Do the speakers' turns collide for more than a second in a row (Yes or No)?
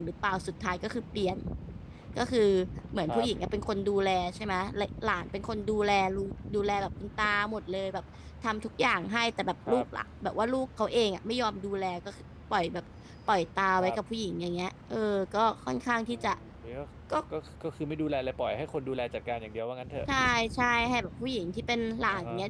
No